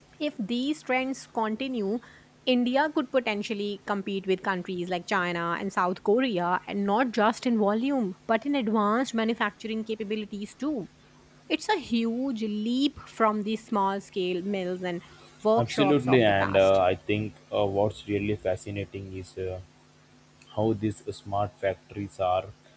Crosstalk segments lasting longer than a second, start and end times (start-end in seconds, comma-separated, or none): 15.6-16.8